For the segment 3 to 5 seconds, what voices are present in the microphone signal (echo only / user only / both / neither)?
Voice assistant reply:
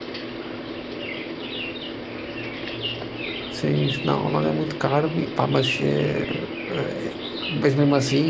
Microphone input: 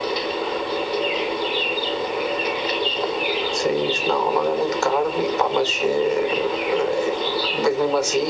echo only